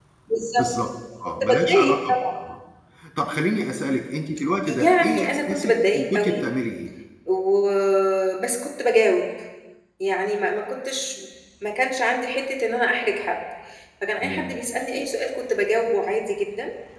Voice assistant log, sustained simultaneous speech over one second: present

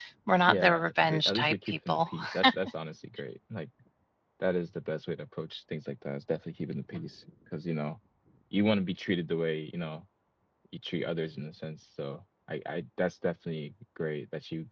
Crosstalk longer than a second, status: present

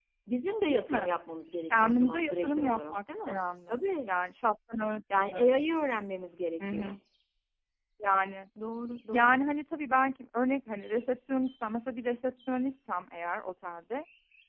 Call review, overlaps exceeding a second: present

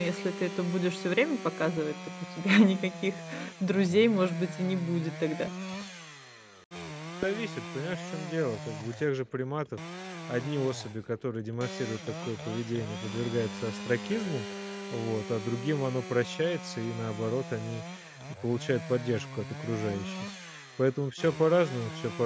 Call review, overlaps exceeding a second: none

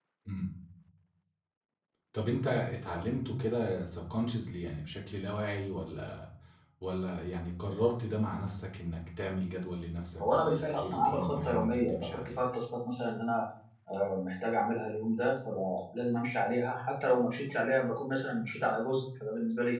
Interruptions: present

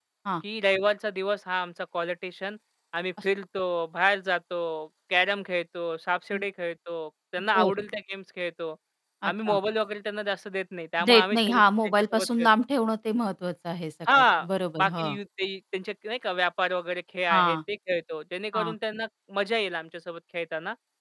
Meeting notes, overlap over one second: present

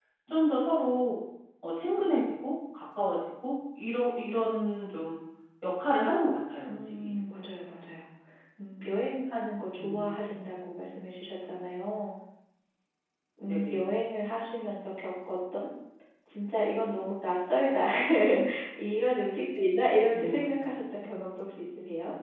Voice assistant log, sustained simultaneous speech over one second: none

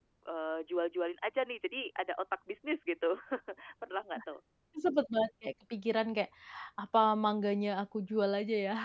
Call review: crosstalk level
none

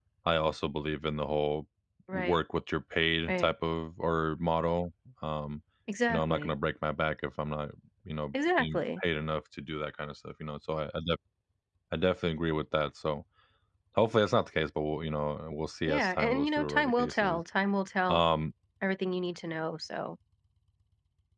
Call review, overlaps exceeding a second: present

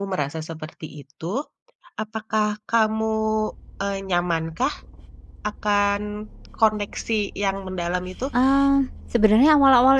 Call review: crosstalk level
none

